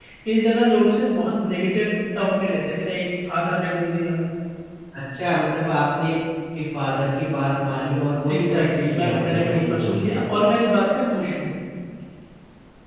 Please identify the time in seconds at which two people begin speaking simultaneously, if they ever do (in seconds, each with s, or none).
8.3 s